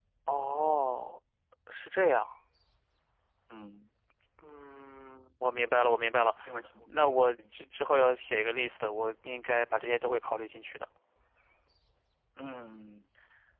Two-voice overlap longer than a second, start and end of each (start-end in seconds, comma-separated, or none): none